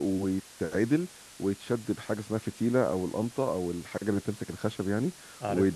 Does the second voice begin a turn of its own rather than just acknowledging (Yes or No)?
No